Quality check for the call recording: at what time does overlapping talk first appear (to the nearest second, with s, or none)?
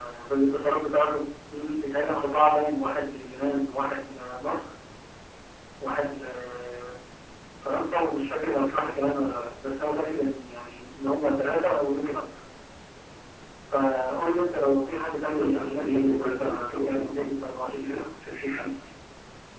15 s